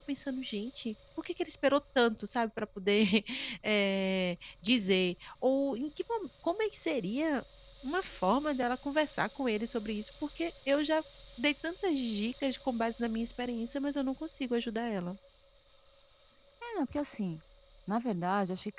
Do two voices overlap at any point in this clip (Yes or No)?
No